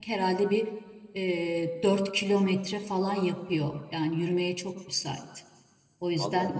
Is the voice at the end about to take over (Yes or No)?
No